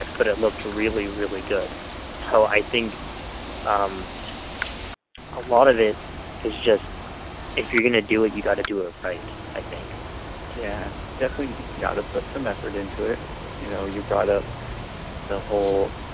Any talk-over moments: No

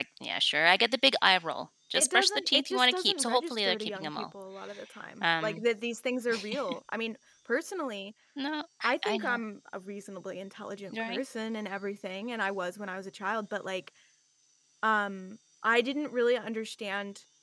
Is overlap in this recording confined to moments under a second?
No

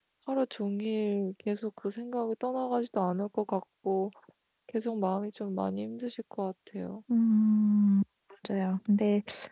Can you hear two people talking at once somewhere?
No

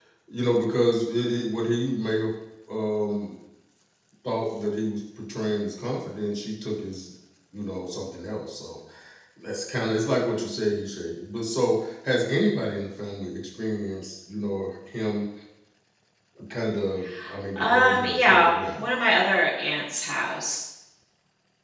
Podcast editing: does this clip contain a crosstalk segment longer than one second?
Yes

